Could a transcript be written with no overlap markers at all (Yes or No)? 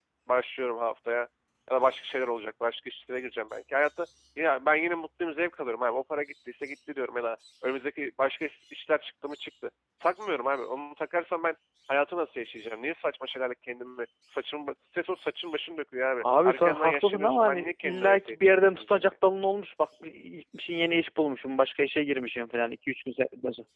No